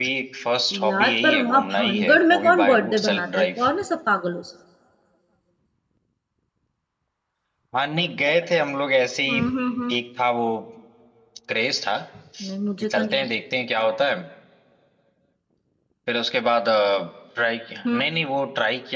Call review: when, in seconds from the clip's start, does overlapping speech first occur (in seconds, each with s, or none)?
0.9 s